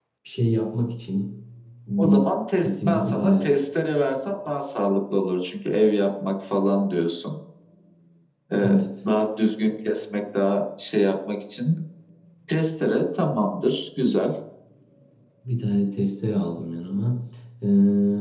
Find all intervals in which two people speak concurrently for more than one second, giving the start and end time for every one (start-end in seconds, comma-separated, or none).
2.0-3.7